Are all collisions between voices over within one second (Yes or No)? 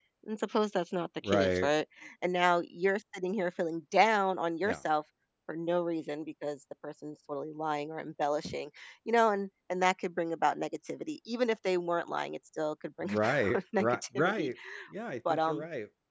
No